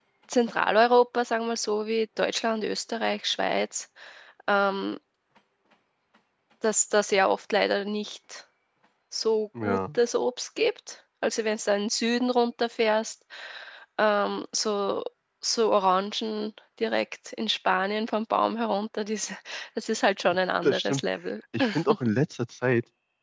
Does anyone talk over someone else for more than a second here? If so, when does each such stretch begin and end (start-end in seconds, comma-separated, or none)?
none